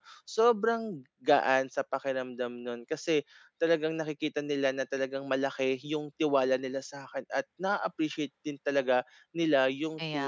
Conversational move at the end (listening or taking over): listening